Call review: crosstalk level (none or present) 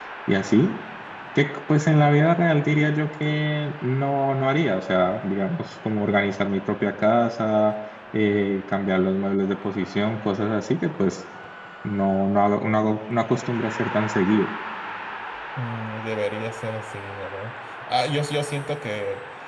none